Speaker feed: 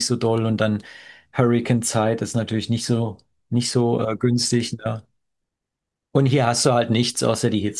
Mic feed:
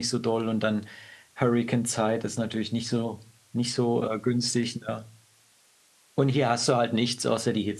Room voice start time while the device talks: none

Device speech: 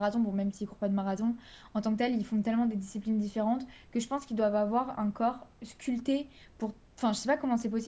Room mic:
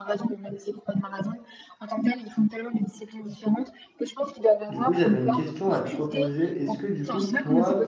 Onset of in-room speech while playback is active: 4.7 s

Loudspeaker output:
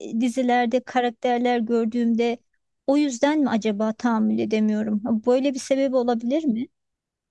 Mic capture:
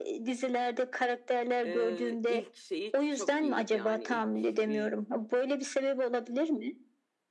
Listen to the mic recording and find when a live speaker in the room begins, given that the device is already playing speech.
1.6 s

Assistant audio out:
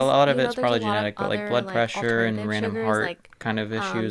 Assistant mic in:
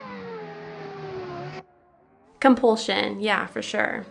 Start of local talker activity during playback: 2.4 s

